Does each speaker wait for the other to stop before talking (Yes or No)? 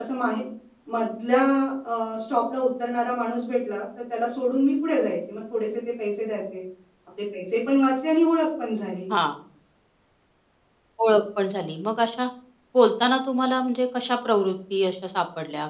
Yes